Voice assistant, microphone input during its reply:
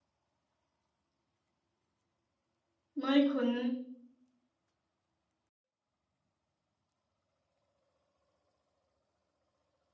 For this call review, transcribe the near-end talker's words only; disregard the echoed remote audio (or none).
ꯃꯣꯢ ꯈꯨꯟ